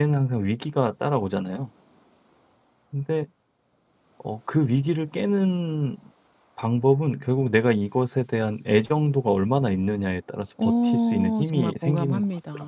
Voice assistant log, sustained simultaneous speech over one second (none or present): present